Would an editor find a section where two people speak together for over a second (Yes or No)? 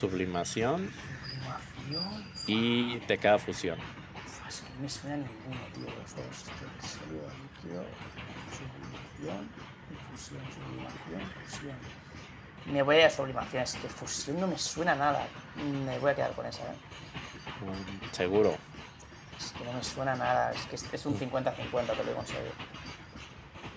No